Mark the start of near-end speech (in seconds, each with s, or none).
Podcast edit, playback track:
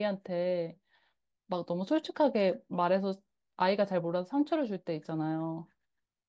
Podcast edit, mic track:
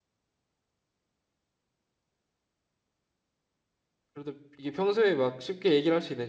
4.1 s